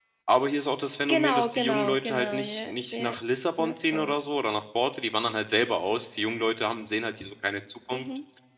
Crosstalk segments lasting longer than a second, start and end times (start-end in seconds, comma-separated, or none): 1.1-3.1